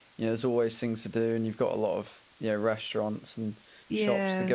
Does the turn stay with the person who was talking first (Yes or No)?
Yes